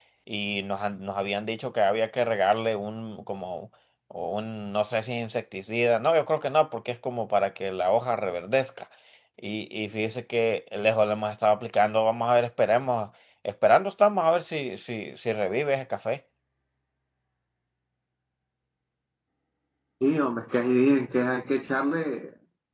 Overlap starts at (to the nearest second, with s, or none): none